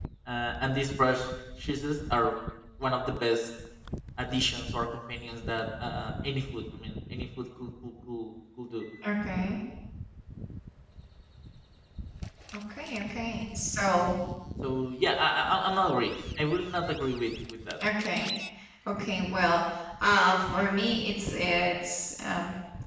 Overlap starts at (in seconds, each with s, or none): none